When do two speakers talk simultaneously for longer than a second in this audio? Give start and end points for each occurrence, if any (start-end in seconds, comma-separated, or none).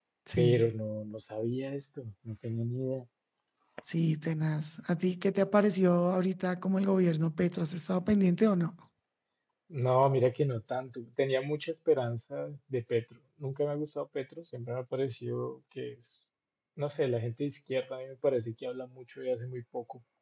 none